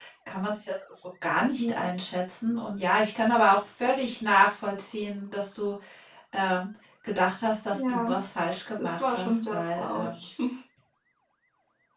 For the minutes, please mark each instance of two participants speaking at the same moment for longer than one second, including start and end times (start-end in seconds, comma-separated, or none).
8.8-10.2